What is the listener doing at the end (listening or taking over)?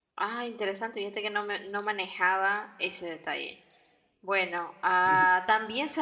listening